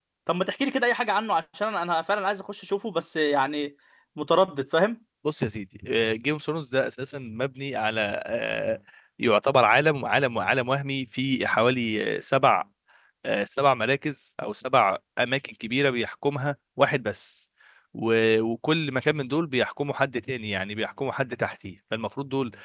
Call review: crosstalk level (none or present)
none